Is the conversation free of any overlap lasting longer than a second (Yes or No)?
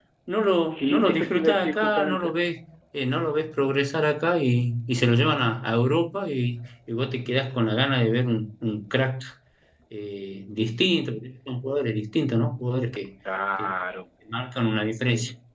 No